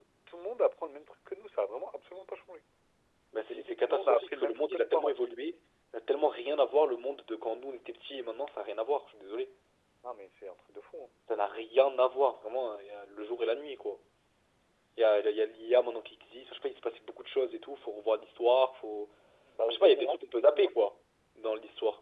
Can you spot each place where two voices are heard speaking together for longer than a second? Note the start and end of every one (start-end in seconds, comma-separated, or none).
3.5-5.1